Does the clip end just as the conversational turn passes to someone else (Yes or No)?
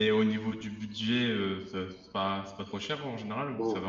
Yes